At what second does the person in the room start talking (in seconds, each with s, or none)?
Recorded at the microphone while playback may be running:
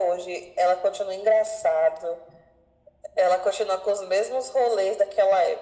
none